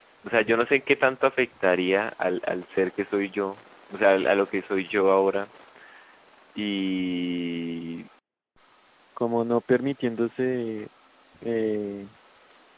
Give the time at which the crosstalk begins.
none

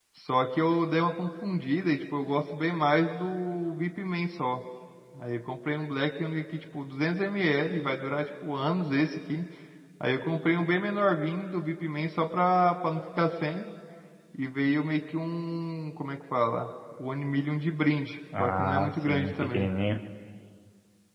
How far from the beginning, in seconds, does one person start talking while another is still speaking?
18.3 s

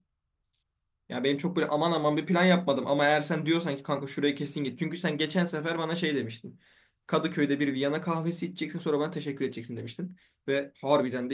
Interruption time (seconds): none

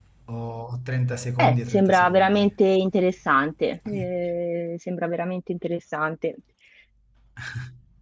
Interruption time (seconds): 1.4 s

